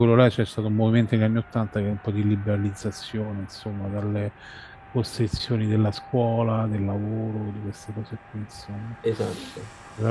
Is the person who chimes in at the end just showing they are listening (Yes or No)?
Yes